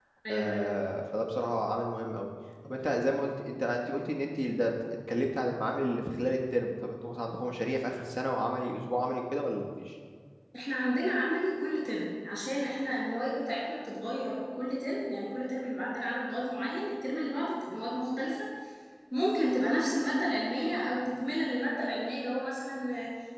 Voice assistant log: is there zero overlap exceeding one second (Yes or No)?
Yes